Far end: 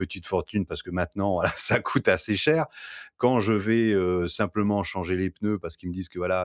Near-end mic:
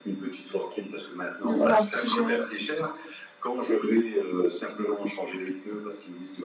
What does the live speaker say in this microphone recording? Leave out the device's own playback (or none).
De vouloir tout gérer?